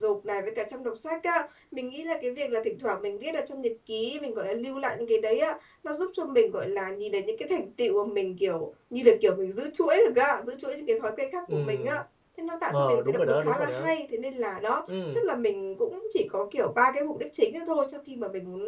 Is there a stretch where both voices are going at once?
Yes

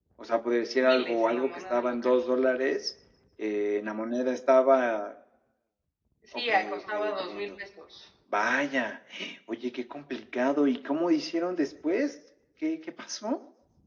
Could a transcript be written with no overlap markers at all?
No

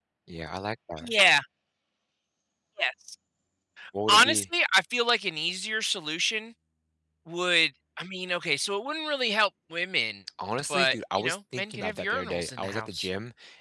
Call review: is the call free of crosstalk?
No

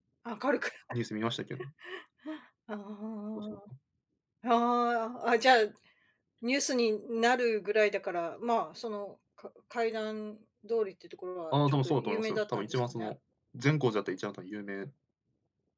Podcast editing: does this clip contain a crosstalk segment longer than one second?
Yes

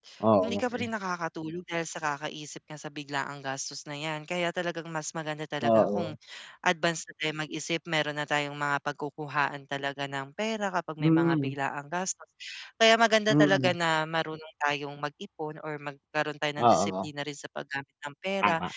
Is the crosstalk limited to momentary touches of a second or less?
Yes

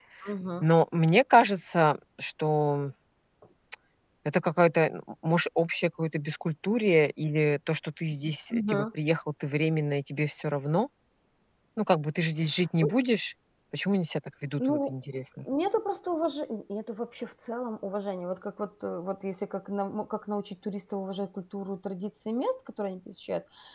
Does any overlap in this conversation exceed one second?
No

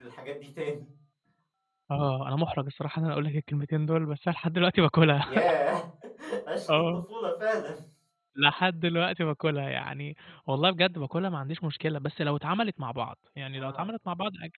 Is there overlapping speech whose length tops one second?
No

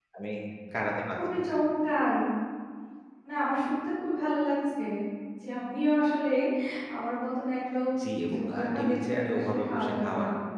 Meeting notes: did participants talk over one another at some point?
Yes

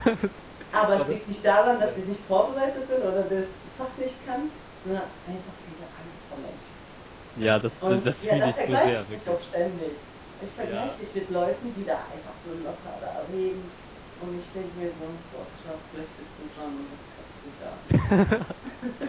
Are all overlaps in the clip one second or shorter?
No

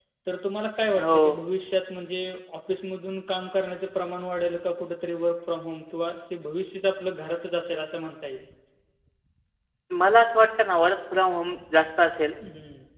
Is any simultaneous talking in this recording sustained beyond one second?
No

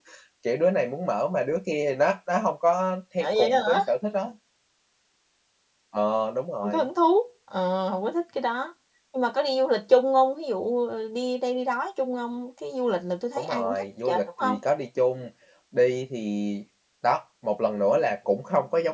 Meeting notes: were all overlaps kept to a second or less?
No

